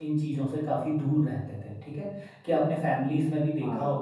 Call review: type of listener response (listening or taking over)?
listening